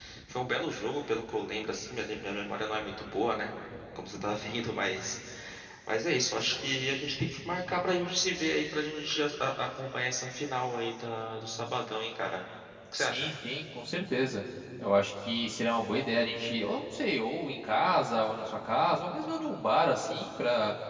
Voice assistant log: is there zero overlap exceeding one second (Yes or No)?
Yes